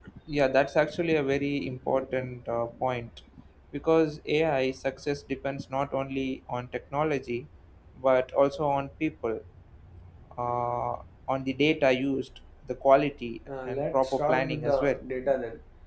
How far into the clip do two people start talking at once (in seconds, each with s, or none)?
13.5 s